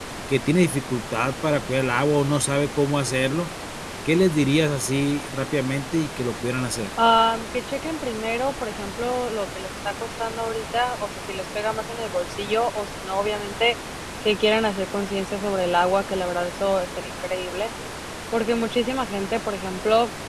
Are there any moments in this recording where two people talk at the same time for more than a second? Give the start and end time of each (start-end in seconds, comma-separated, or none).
none